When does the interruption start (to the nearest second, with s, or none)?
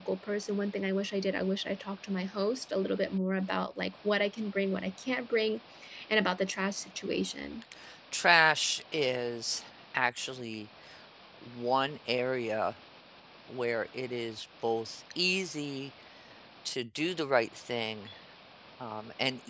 none